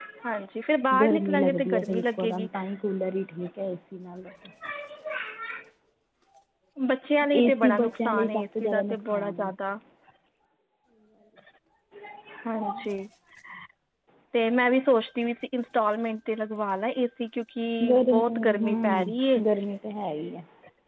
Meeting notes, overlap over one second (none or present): present